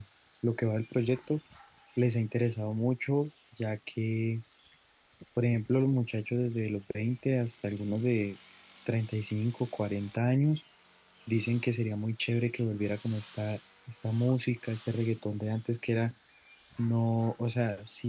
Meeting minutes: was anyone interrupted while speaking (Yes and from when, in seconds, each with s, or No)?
No